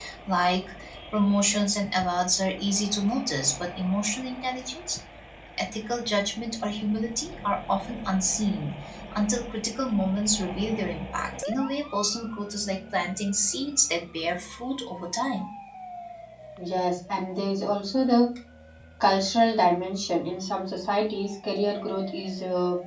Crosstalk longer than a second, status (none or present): none